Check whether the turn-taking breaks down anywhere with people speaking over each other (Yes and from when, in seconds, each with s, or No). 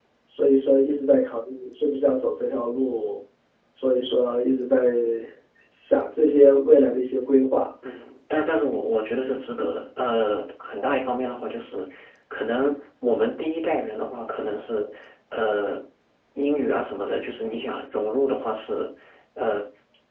No